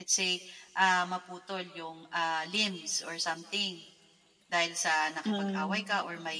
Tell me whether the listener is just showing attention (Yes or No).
Yes